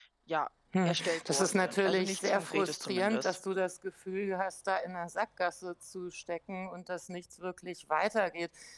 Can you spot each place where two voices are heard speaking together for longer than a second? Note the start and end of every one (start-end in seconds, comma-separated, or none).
0.8-3.4